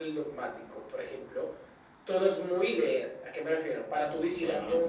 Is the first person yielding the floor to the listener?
No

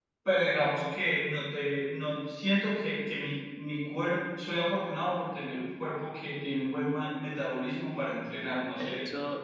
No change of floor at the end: No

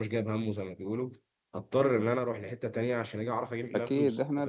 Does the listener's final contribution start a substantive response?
Yes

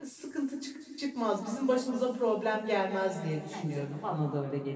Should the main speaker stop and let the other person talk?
Yes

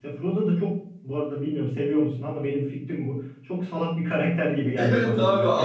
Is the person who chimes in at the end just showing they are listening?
No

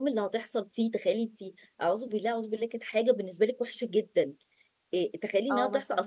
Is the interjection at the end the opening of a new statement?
No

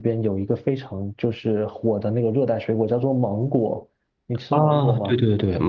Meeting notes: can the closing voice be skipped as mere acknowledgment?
No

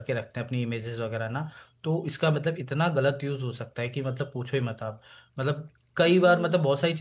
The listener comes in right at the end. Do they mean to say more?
No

